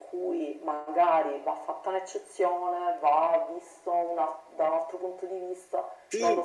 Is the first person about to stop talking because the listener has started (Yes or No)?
Yes